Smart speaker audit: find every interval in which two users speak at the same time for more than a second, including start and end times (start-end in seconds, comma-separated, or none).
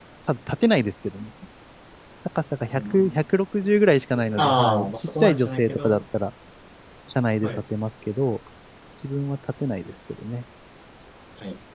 4.4-6.0